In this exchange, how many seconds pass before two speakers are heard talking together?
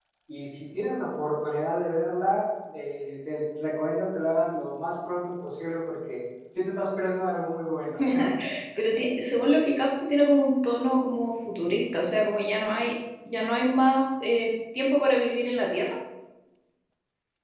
none

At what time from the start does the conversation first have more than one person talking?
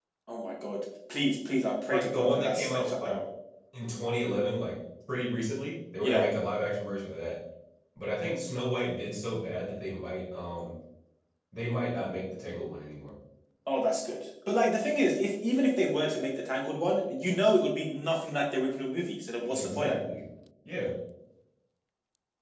1.9 s

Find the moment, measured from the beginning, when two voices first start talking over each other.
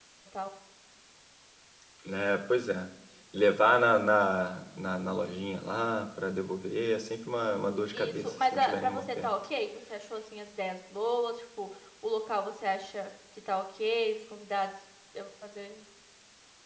7.9 s

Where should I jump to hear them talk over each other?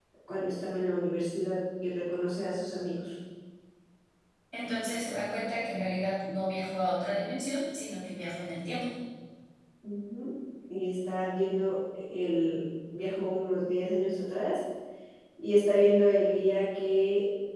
none

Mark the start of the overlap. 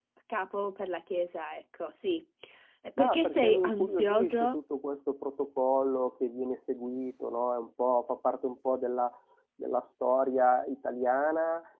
3.0 s

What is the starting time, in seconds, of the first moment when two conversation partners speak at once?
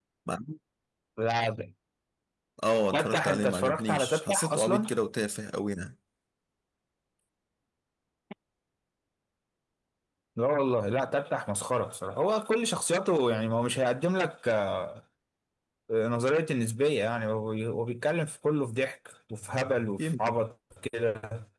2.9 s

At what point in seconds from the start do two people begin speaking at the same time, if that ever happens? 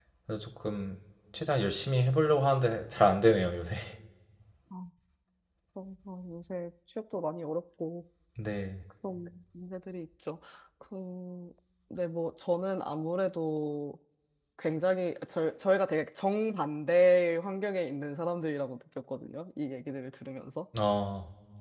none

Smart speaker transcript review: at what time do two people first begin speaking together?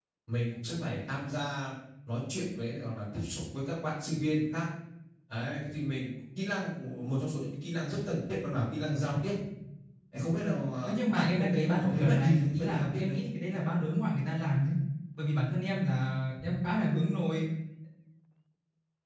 10.9 s

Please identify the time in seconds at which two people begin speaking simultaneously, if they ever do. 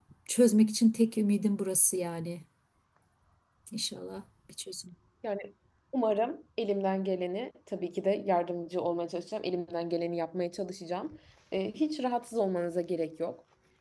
none

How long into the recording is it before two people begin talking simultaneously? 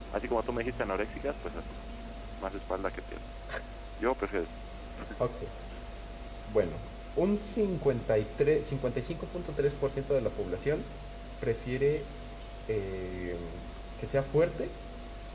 none

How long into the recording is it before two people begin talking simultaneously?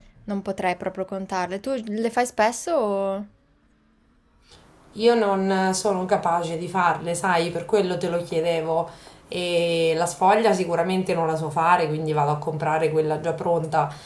none

